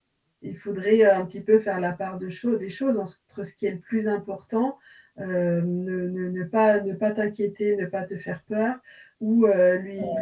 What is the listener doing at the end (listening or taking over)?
listening